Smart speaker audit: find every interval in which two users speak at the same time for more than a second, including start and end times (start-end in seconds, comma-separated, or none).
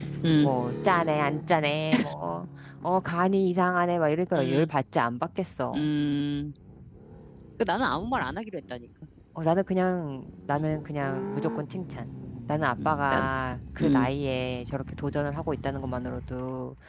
none